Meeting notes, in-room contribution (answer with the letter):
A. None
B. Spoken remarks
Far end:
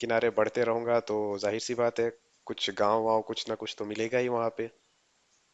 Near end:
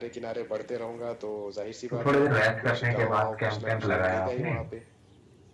B